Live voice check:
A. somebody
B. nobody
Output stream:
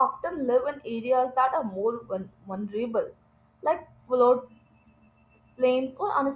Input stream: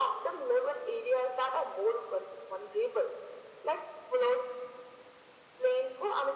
B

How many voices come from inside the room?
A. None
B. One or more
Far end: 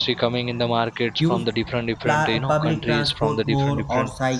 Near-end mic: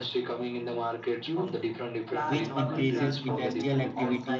B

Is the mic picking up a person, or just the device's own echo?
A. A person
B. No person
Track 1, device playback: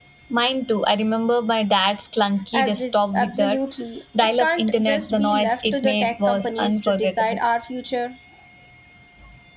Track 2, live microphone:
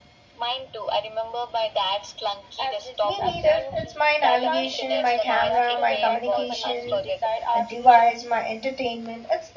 A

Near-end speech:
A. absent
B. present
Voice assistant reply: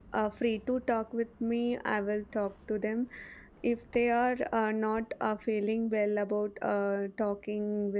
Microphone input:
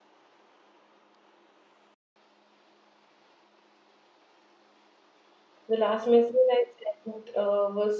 B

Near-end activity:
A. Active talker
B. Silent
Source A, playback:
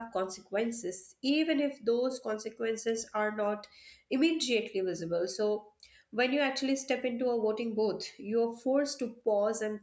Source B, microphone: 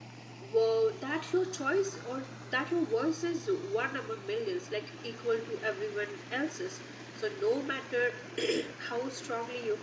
A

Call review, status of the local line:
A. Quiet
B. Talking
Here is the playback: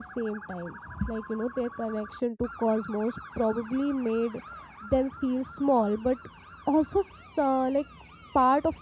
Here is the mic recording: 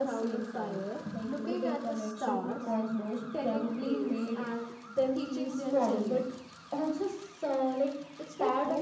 B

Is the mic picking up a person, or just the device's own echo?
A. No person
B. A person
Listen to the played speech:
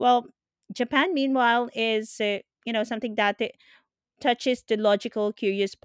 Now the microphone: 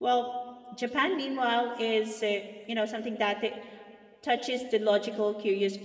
A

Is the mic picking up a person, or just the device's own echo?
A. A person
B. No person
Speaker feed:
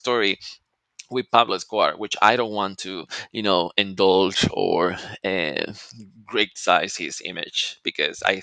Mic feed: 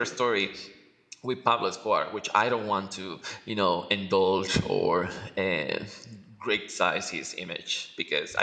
B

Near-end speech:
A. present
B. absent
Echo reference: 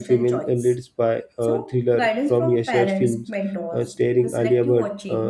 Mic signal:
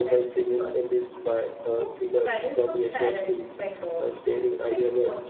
B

